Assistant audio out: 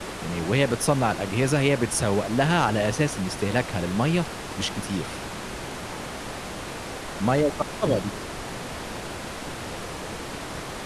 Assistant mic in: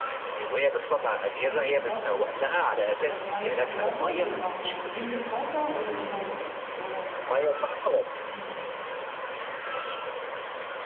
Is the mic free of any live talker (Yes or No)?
No